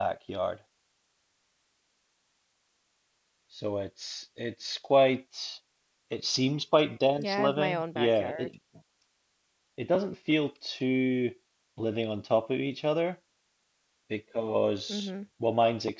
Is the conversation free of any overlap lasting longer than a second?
No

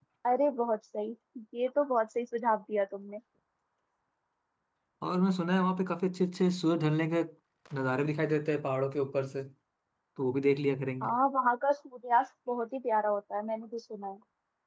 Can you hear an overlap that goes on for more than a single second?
No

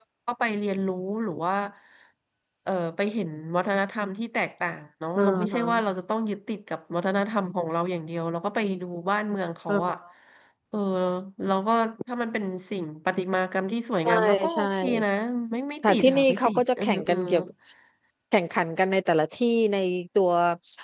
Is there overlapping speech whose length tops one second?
Yes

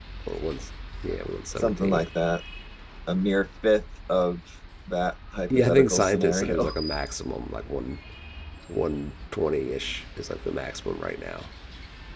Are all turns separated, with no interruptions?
No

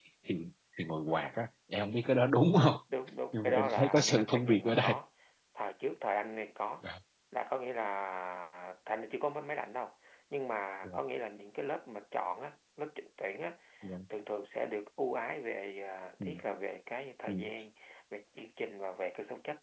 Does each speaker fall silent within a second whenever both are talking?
No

